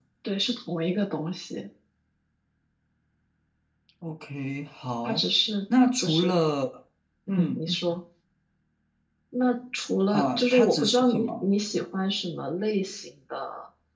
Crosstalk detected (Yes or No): Yes